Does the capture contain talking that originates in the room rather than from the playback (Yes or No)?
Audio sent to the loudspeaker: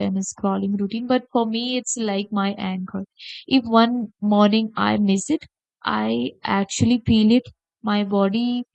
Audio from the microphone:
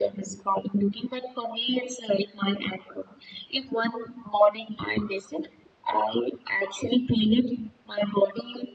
No